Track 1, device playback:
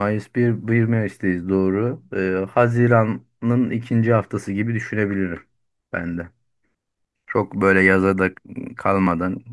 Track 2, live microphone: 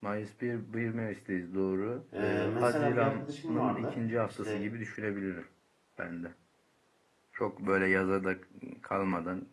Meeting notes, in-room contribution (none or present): present